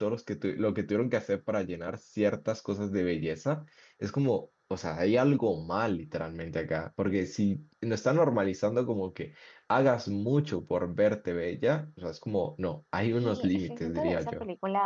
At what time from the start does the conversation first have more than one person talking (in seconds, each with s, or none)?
13.1 s